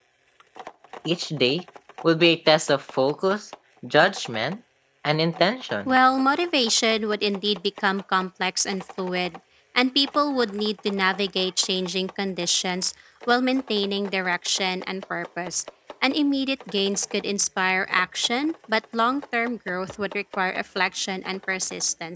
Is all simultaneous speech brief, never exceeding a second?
Yes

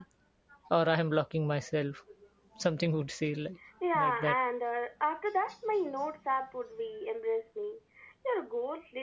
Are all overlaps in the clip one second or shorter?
Yes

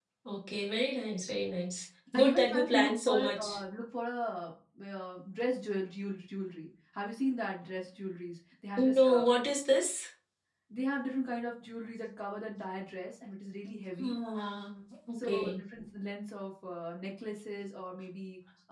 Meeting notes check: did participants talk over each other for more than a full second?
Yes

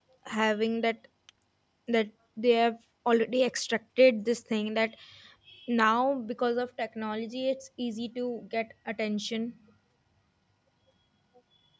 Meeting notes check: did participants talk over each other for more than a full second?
No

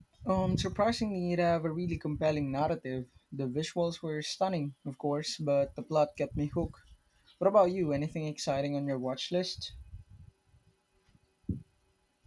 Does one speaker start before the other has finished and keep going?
No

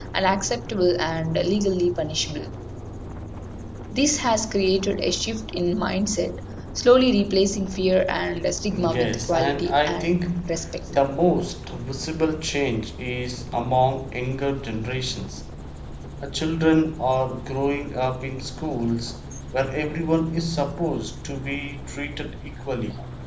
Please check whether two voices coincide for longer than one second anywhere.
Yes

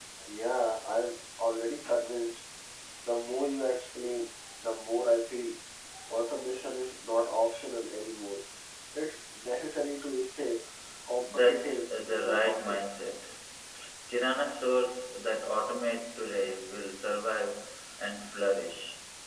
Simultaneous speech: Yes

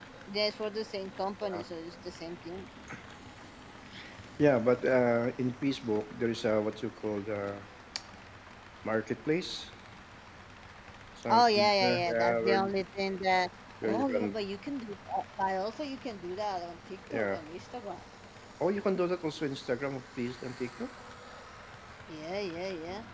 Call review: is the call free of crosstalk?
No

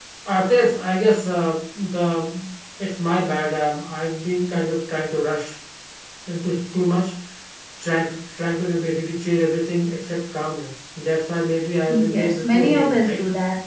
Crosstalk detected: Yes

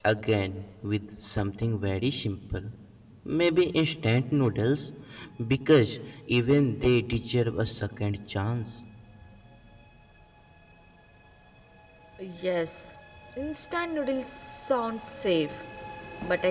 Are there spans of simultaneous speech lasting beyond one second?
No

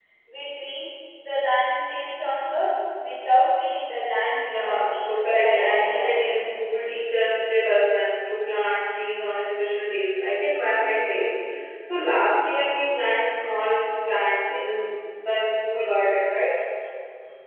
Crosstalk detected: Yes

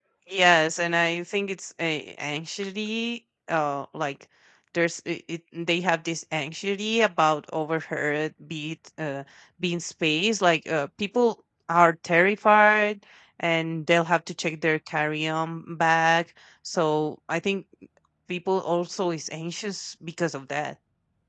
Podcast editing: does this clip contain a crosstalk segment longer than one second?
No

